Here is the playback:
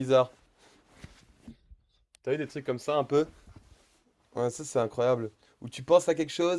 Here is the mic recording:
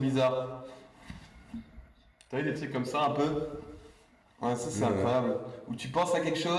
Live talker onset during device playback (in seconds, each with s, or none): 4.7 s